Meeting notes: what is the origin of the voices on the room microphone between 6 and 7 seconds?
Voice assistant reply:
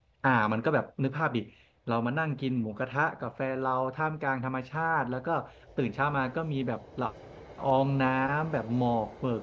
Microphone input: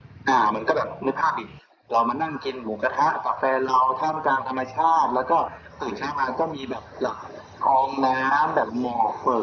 echo only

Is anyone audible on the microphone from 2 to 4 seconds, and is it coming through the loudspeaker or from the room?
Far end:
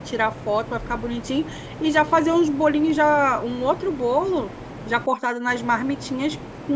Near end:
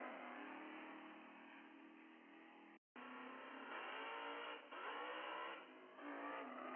neither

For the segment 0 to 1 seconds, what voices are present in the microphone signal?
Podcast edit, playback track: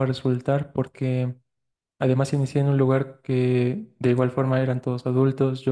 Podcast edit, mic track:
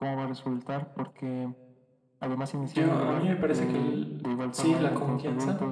echo only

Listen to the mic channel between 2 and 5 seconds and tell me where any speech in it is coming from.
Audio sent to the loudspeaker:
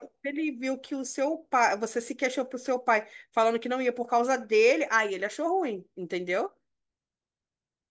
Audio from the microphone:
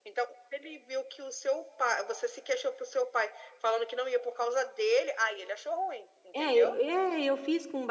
echo only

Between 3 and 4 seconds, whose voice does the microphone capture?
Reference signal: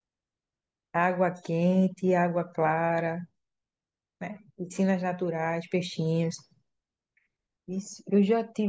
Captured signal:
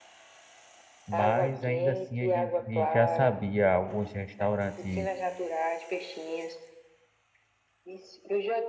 both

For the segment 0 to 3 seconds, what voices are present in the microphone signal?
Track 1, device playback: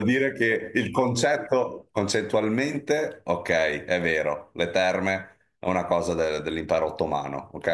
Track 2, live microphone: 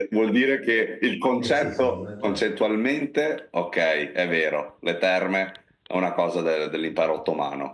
both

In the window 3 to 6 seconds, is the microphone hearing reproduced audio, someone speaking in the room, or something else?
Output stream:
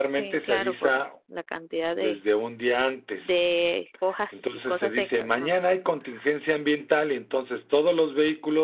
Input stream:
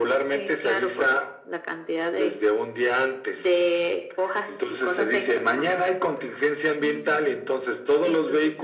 echo only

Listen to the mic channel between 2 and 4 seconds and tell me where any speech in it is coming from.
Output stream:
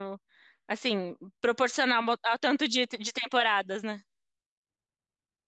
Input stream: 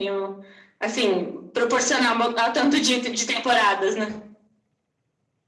echo only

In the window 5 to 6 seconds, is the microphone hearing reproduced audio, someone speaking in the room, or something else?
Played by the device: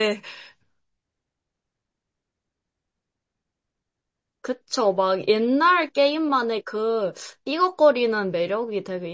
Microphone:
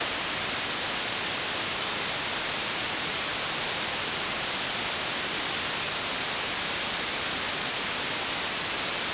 neither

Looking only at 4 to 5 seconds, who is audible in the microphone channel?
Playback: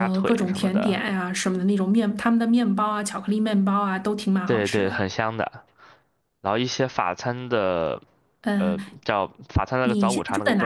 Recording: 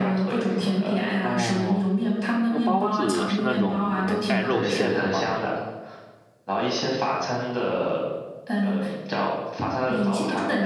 both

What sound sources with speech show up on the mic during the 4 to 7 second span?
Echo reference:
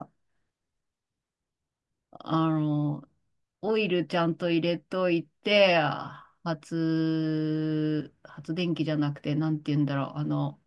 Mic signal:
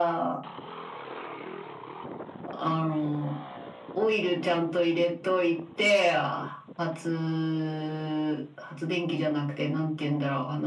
echo only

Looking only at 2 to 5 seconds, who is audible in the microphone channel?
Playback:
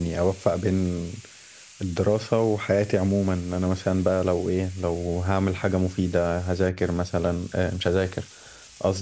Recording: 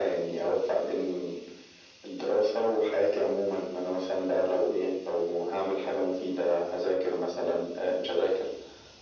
echo only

